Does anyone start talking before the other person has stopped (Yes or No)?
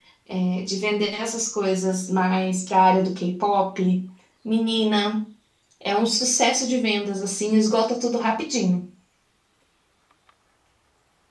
No